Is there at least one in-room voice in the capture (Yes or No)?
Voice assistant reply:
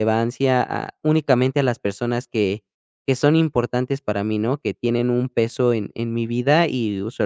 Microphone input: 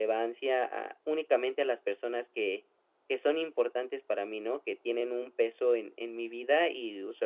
No